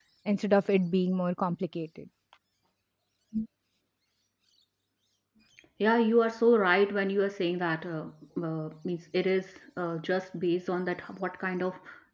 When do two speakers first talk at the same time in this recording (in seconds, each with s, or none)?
none